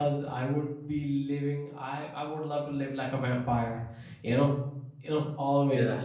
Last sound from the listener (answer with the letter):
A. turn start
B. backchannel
B